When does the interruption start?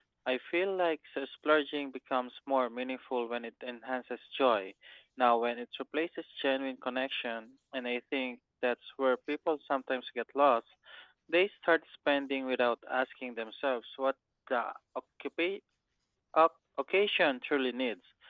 none

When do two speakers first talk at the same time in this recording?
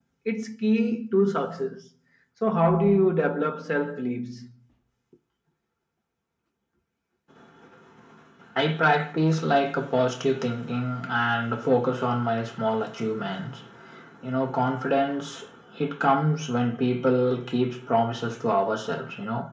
none

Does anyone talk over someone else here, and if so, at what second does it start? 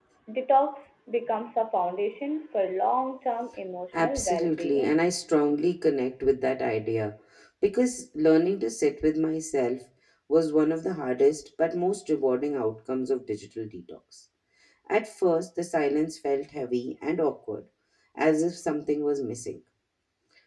3.9 s

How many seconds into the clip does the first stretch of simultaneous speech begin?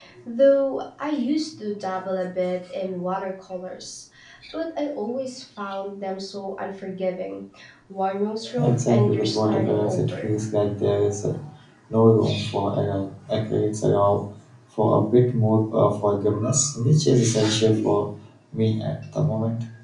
8.6 s

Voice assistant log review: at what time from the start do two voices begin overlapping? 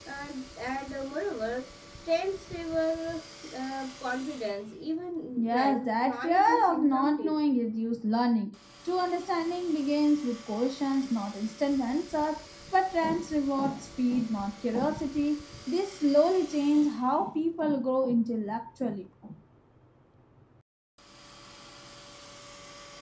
5.4 s

